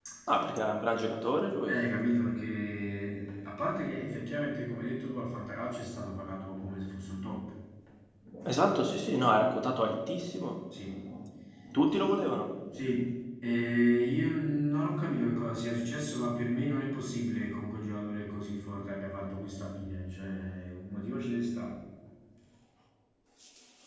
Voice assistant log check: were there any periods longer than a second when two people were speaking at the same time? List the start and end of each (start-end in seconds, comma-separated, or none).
none